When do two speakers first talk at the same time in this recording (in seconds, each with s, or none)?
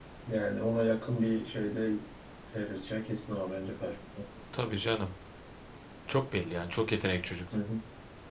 none